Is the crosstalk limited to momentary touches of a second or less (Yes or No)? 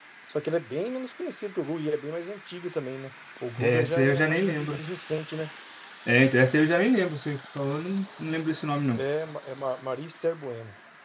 No